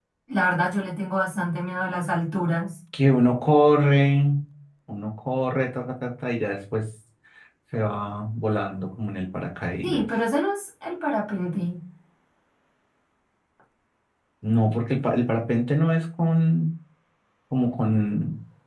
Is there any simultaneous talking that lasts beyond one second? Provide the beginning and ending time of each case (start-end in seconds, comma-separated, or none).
none